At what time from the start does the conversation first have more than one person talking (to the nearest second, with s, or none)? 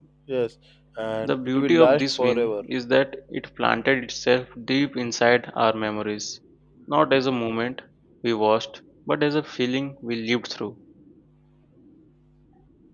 1 s